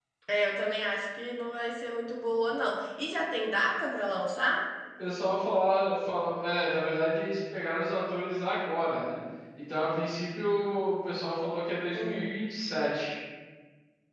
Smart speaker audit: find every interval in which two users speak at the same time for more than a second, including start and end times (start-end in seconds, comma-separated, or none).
none